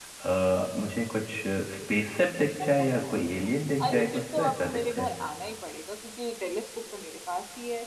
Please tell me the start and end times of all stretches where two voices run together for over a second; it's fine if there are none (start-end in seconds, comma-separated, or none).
3.8-5.1